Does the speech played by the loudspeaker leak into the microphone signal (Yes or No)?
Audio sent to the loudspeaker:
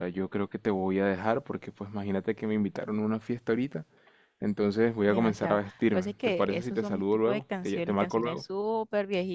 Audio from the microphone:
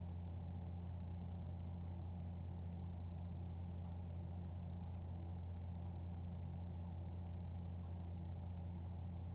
No